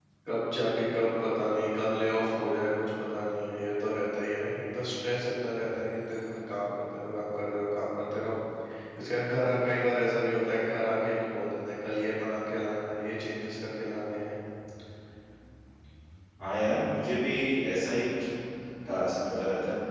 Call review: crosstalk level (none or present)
none